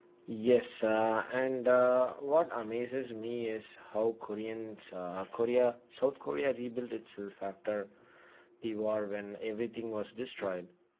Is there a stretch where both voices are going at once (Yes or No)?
No